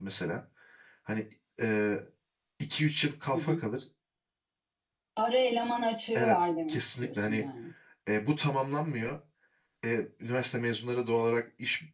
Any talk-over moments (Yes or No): Yes